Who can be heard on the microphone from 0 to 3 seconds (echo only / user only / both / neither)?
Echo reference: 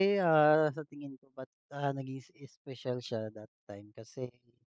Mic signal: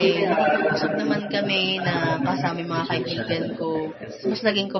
both